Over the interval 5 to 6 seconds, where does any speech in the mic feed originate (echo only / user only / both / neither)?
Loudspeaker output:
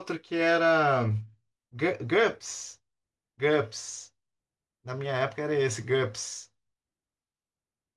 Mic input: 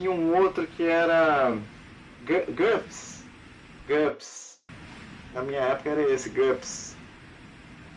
echo only